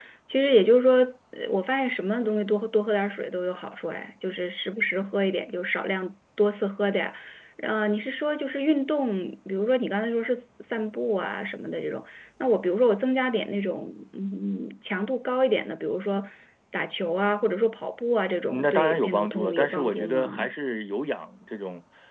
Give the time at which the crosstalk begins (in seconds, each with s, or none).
18.5 s